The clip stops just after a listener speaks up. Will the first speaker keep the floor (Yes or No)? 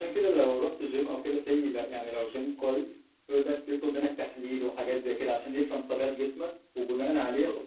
Yes